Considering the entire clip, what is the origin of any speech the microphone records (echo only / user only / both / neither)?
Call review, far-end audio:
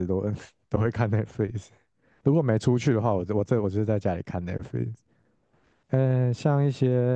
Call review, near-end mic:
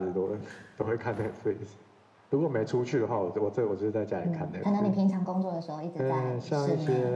both